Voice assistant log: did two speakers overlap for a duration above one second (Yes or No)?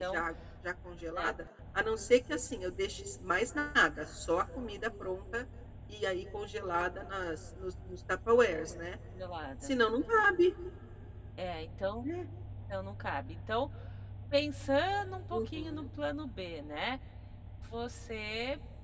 No